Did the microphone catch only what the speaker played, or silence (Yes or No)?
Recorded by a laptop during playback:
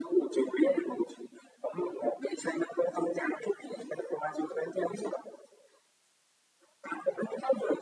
Yes